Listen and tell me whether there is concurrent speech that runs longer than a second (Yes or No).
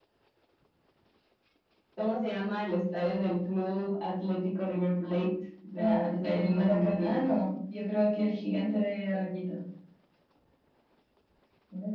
Yes